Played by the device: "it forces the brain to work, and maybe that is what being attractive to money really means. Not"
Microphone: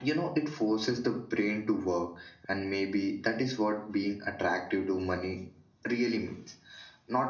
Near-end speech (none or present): none